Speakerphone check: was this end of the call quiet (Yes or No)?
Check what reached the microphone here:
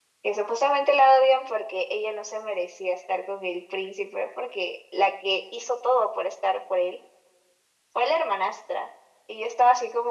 Yes